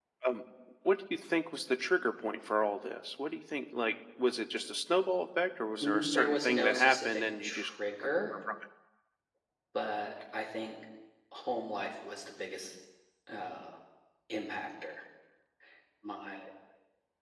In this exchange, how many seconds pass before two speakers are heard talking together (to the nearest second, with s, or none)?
6 s